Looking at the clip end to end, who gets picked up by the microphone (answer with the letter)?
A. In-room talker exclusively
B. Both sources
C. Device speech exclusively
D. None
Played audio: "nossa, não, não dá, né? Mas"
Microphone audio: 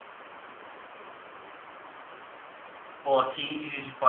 A